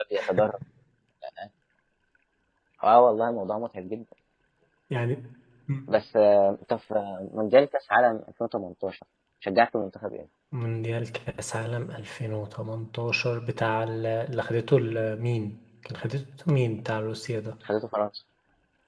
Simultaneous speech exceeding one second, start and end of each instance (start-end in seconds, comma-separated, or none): none